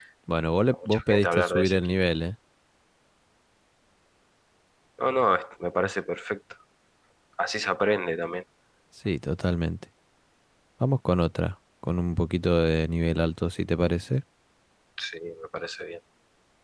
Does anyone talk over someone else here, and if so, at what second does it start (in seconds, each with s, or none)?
0.7 s